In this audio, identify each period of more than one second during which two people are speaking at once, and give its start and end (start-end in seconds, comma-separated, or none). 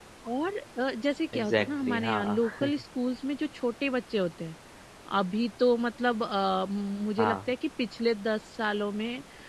1.4-2.7